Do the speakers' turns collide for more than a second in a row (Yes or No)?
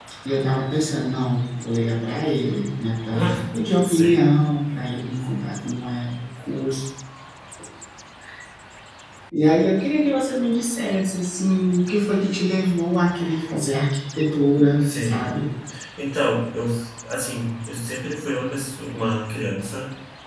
No